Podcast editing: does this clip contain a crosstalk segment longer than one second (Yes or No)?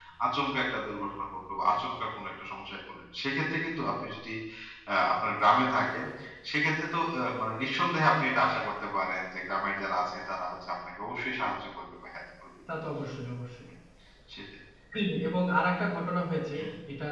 No